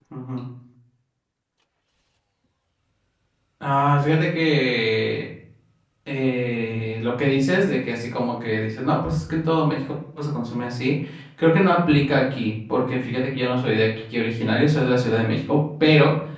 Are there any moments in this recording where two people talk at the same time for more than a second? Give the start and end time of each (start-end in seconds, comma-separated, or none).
none